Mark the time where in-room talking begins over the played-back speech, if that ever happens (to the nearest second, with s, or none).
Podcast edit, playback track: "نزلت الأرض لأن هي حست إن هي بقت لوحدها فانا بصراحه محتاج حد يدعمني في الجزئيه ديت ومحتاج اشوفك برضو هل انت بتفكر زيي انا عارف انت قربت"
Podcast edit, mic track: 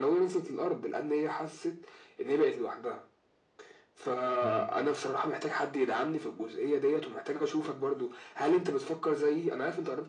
4 s